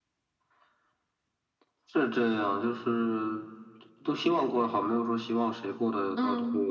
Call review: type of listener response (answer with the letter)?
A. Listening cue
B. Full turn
B